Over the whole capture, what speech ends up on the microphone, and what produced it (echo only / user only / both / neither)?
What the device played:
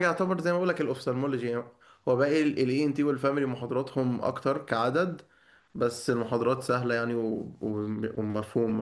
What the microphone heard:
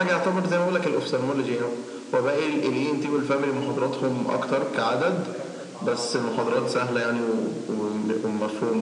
both